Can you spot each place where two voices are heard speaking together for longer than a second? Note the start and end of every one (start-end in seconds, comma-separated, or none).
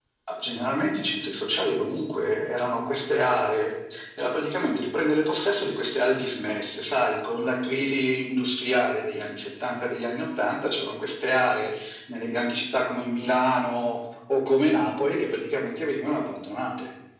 none